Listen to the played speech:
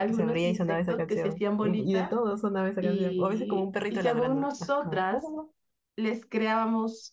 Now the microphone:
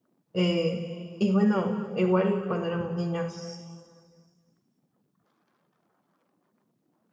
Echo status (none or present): none